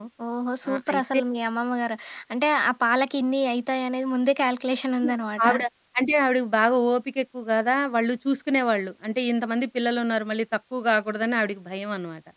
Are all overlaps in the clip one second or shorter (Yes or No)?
Yes